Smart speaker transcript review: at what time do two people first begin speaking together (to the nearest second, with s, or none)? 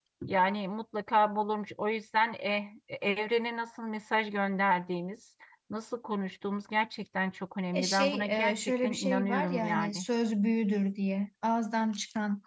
8 s